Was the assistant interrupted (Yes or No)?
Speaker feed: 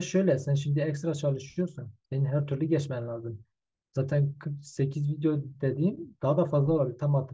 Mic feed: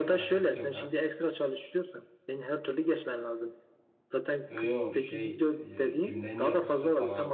Yes